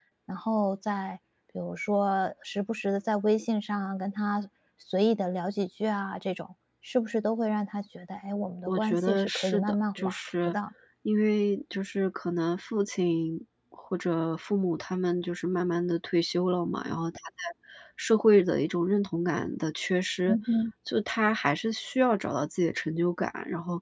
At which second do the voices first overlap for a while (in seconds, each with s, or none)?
8.7 s